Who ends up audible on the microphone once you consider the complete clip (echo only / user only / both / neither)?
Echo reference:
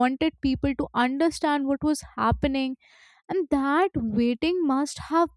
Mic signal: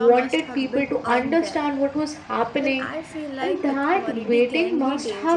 both